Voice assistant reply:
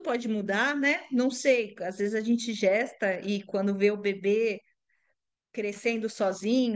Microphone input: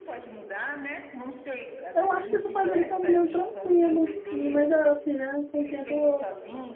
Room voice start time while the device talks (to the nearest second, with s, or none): 2 s